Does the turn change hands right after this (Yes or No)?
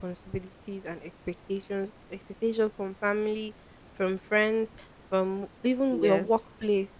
No